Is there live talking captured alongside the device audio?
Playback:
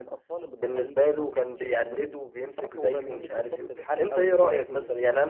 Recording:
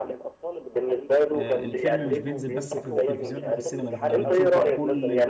Yes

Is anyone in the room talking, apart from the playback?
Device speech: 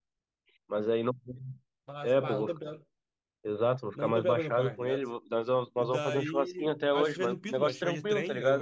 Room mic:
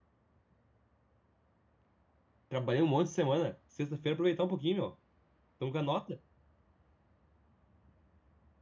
Yes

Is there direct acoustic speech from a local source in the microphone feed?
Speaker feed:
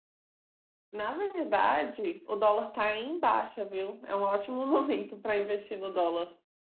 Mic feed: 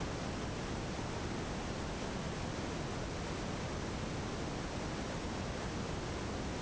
No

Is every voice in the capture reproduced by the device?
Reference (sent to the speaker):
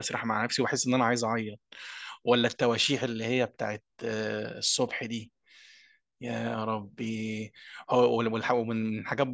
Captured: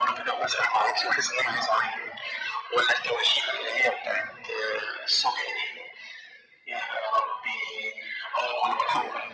Yes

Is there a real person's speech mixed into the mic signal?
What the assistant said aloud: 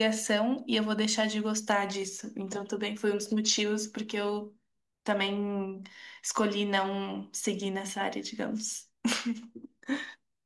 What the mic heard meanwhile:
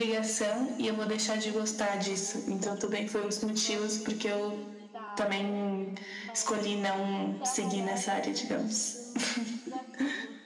Yes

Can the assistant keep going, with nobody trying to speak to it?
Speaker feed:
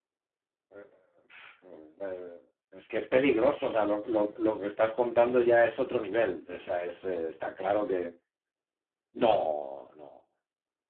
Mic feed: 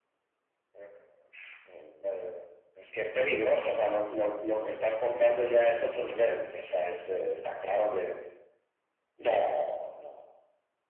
Yes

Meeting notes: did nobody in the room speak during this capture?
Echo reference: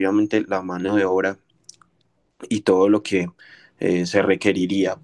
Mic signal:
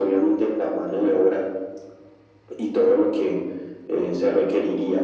Yes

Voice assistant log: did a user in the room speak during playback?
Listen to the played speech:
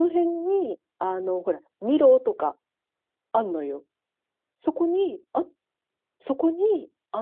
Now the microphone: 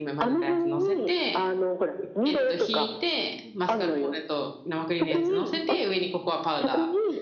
Yes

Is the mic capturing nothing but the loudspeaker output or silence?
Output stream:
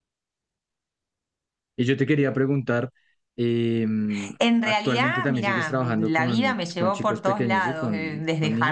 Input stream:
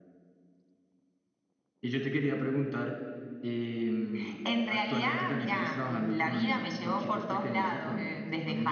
Yes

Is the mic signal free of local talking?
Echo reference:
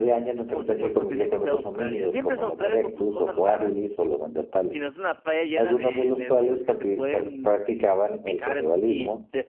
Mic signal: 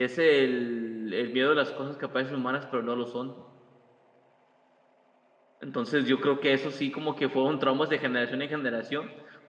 No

